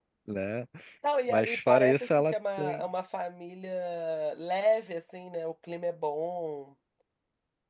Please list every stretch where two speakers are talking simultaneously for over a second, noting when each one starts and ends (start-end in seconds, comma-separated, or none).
1.3-2.8